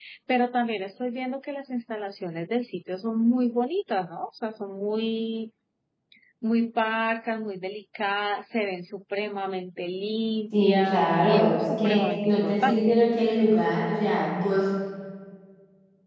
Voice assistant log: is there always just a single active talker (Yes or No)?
No